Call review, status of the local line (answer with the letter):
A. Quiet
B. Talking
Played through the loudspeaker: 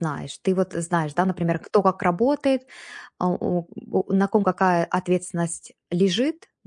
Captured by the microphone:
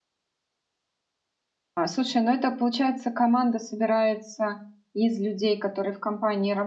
B